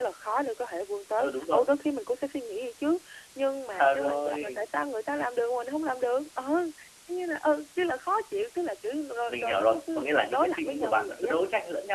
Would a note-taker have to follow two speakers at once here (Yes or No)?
Yes